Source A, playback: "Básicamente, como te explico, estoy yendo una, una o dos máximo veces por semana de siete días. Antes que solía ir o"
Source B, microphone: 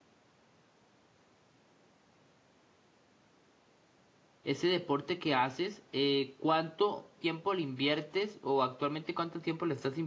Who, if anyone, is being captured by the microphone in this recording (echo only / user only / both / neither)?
user only